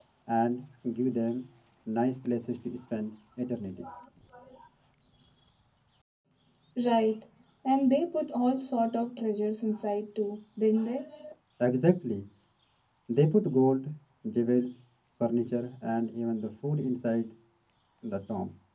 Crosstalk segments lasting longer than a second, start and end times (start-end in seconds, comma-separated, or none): none